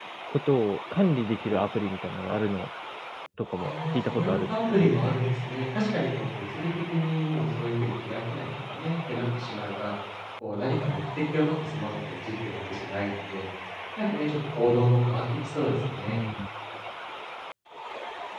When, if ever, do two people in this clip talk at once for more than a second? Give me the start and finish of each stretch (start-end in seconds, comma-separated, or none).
3.6-4.9